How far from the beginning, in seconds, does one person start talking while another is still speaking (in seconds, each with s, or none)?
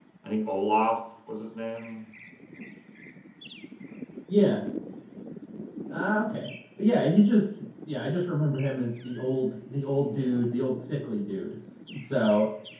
none